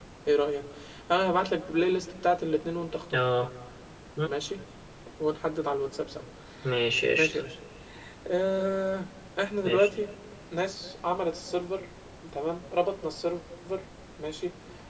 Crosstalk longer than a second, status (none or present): none